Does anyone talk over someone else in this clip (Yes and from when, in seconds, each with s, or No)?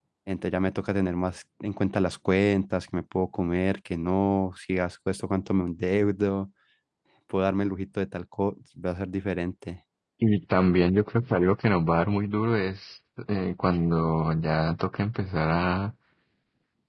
No